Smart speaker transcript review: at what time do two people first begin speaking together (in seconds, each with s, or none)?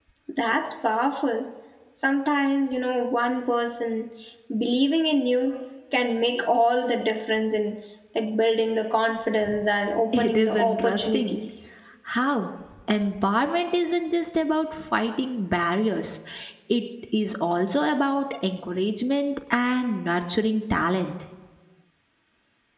10.1 s